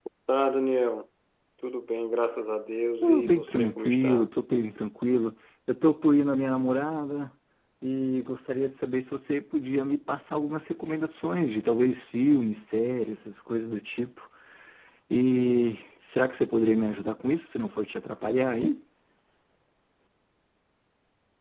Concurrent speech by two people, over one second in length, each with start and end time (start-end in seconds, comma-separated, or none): 3.0-4.3